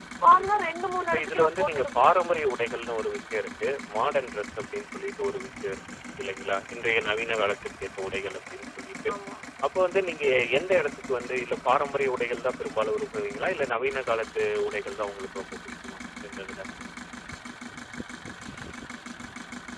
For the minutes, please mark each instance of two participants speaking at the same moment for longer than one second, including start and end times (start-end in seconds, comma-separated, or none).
1.0-2.5